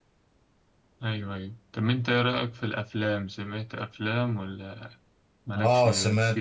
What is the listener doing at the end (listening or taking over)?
taking over